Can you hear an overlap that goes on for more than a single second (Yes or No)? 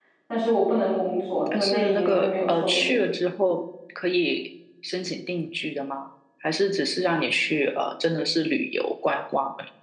Yes